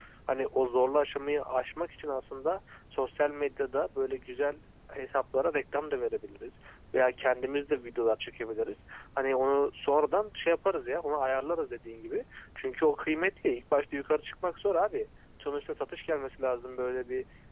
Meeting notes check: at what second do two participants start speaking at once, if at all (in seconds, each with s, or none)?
none